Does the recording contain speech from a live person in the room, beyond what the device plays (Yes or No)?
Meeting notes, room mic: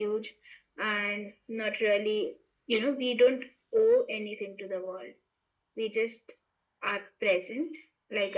No